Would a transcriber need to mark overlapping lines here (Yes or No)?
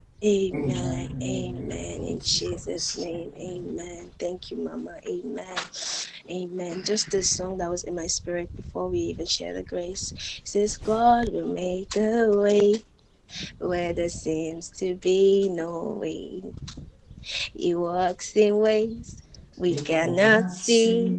Yes